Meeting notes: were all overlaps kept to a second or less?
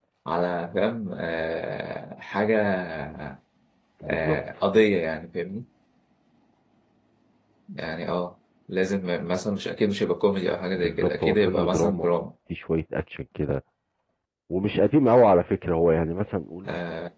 No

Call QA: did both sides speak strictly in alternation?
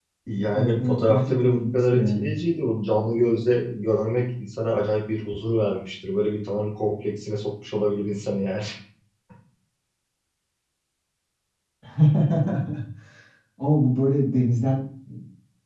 No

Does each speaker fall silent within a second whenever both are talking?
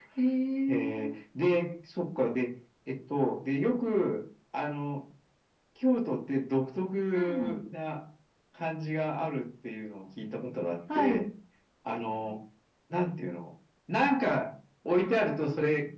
Yes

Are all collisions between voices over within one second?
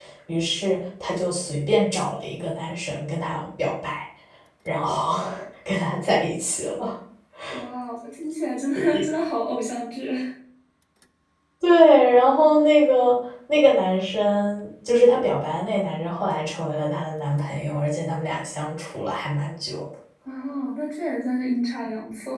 Yes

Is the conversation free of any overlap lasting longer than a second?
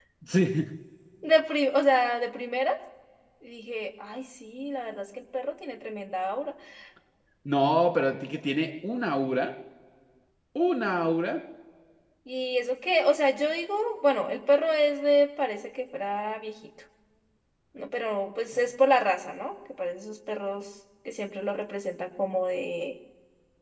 Yes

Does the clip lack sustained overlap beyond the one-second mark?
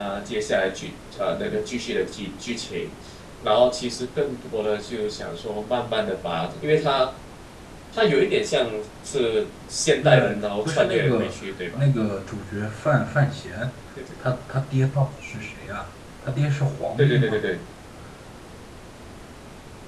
No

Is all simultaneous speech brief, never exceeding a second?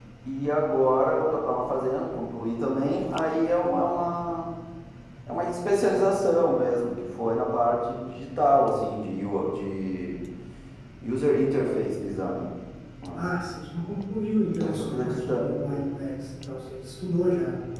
No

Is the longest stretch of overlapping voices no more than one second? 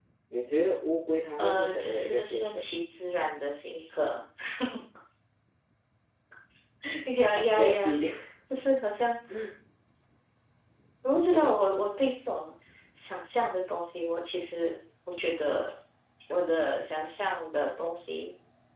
No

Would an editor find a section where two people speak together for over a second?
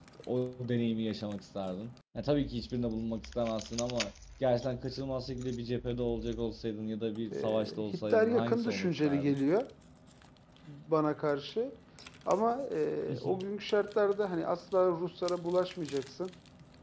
Yes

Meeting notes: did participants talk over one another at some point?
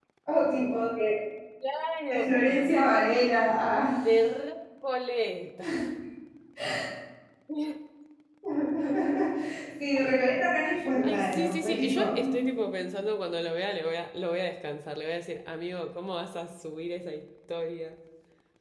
Yes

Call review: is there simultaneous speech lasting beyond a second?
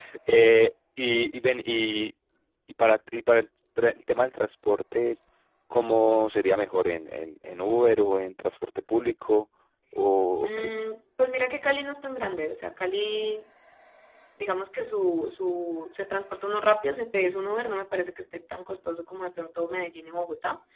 No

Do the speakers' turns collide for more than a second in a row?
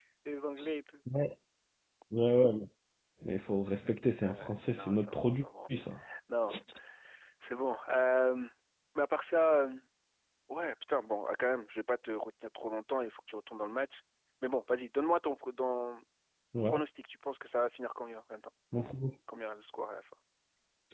Yes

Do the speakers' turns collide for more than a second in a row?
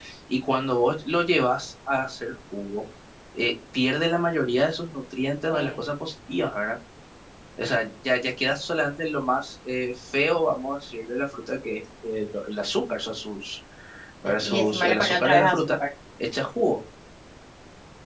Yes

